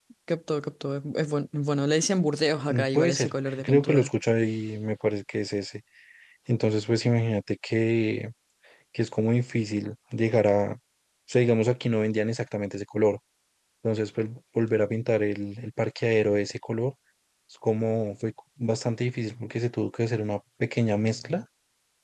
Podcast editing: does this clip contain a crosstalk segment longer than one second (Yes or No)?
Yes